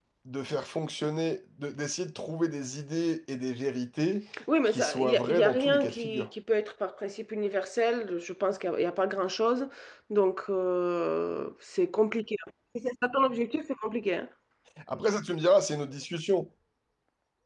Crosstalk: present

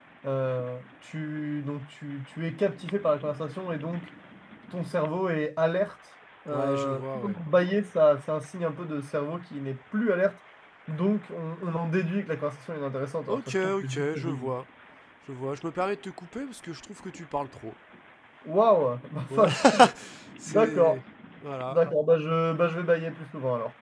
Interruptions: present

